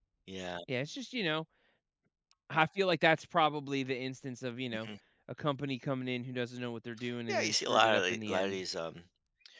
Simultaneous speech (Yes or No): Yes